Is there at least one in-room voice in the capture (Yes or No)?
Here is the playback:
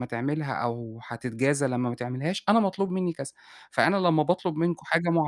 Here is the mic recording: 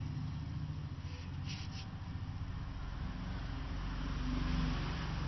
No